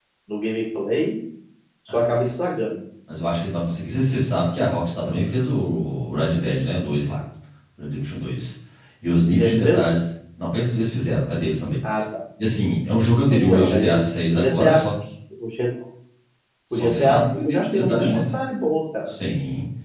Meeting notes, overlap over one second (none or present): present